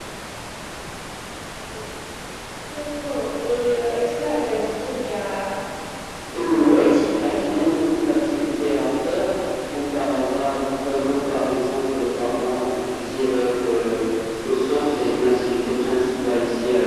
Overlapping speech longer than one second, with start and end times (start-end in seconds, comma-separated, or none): 6.3-7.6